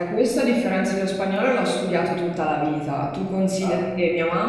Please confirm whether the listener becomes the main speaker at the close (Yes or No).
No